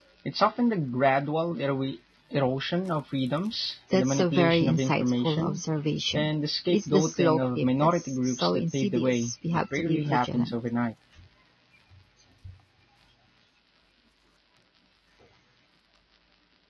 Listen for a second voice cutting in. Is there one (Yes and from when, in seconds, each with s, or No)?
Yes, from 3.9 s